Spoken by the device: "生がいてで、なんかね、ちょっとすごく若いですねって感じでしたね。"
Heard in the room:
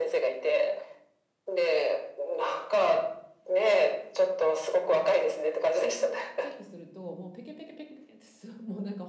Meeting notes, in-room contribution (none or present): present